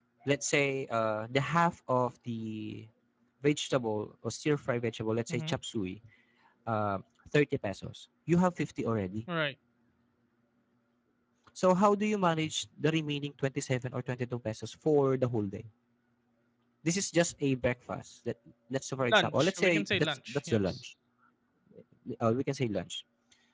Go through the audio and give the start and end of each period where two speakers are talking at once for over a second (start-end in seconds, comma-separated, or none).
19.1-20.8